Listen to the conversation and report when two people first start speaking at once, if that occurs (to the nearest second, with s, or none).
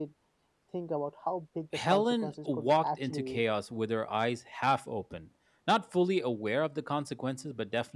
2 s